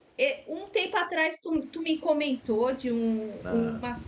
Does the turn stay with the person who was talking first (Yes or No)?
Yes